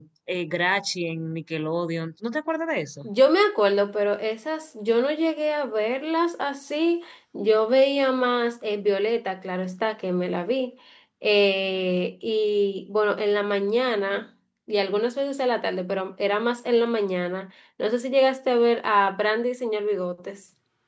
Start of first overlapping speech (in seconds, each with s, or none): none